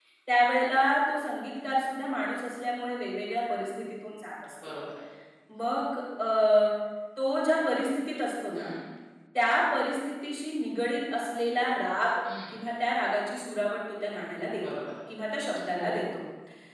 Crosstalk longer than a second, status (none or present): none